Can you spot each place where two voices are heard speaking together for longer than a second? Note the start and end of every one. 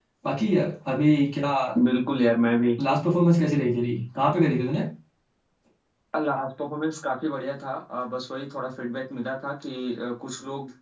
none

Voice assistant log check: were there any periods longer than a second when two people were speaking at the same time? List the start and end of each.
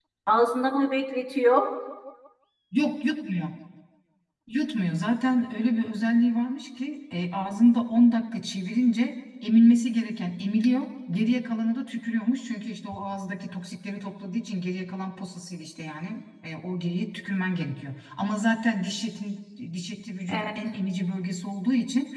none

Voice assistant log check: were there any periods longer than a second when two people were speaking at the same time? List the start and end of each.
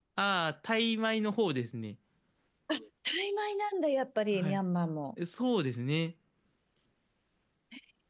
none

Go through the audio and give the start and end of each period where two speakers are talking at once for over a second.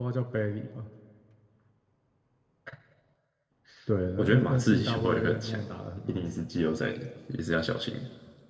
4.2-5.6

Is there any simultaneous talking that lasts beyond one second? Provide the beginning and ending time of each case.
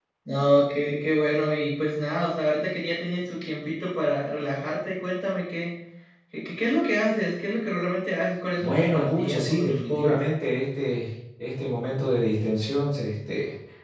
8.6-10.2

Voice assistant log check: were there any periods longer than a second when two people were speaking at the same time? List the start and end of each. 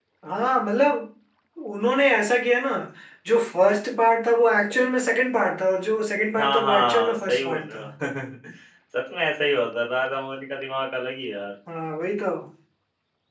6.4-7.8

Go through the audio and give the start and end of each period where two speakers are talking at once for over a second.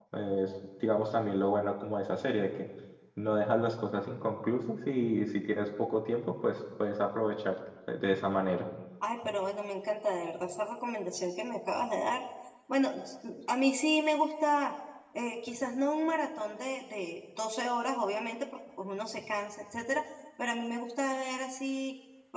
none

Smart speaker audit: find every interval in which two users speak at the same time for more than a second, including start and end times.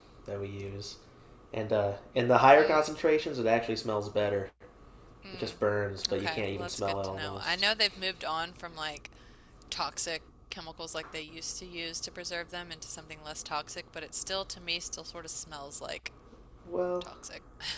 6.1-7.6

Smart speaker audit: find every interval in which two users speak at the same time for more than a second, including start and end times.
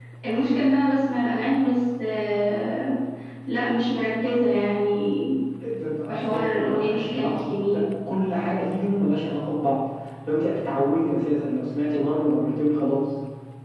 6.1-7.9

